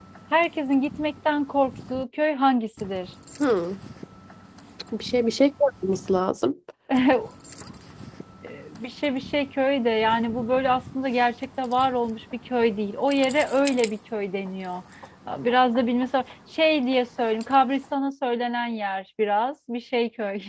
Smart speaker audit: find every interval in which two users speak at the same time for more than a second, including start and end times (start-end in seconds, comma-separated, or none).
none